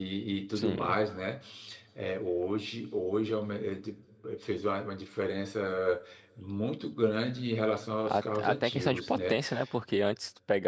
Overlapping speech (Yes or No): Yes